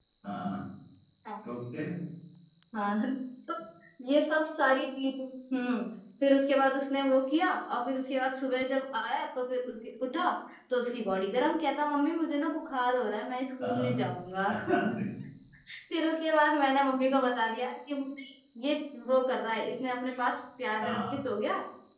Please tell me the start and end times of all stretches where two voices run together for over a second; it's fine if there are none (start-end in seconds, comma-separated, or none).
none